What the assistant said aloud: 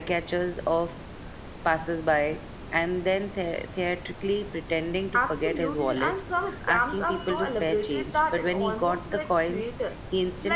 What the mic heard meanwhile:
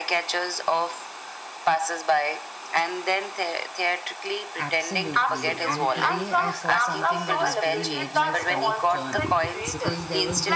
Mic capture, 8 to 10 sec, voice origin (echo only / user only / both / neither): both